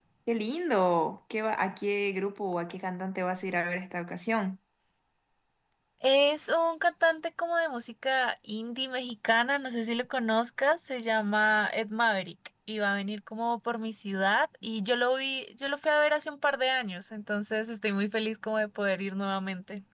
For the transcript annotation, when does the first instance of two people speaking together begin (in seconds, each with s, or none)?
none